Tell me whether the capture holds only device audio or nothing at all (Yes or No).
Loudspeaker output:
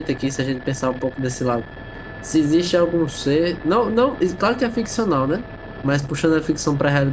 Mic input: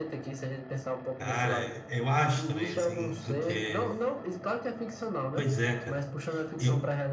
No